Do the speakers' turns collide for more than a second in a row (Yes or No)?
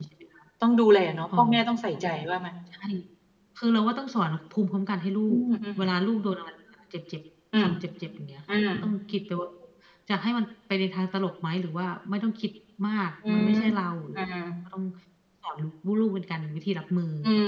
No